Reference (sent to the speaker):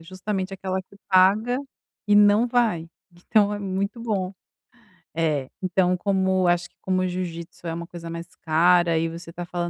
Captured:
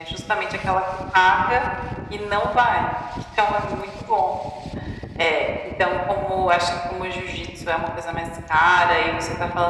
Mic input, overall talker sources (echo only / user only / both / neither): echo only